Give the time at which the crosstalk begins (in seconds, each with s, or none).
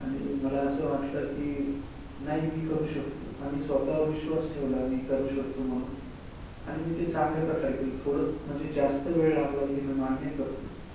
none